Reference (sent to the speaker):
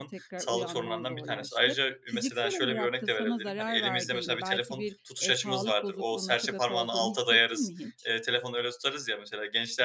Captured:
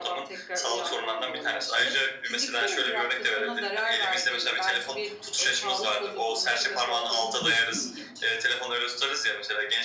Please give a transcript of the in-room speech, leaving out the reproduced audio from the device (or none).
Hı hı.